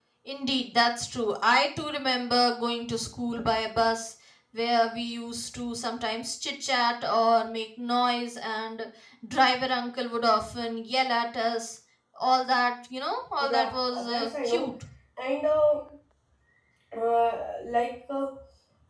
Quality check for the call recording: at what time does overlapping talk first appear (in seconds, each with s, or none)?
13.4 s